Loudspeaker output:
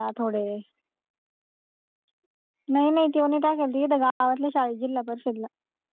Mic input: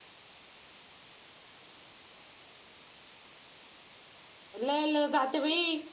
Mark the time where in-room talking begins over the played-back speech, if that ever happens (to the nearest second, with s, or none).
5 s